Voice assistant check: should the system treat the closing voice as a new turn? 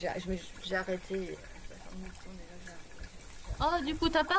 Yes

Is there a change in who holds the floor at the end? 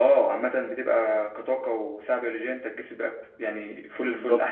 Yes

